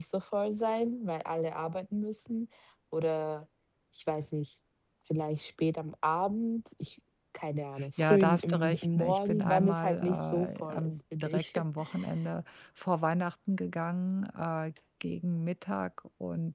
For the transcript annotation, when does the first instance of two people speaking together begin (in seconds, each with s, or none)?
7.8 s